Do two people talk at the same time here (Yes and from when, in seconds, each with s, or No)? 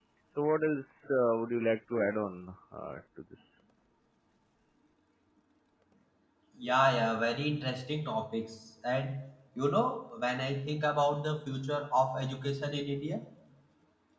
No